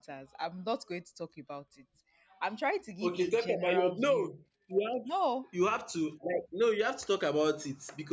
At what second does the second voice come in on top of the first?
3.0 s

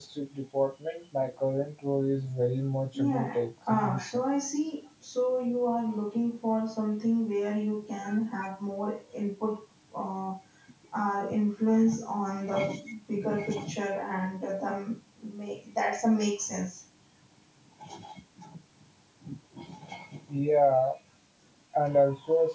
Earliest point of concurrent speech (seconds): 3.0 s

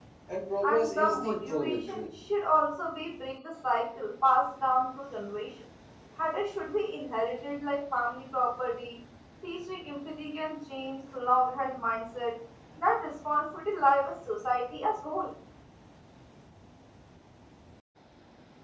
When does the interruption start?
0.6 s

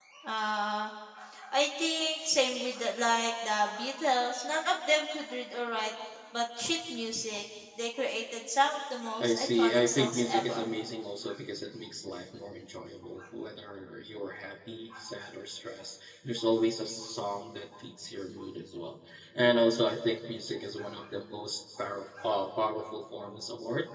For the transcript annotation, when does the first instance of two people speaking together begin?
9.2 s

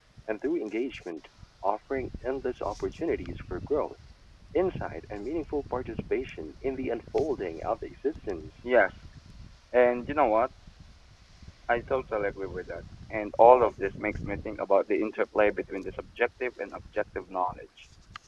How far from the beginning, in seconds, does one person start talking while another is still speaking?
none

